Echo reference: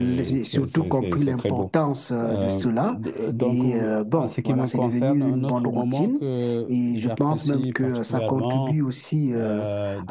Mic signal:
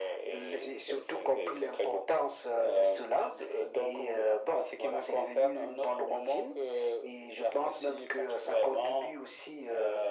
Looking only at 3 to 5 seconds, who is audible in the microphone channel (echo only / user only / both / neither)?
echo only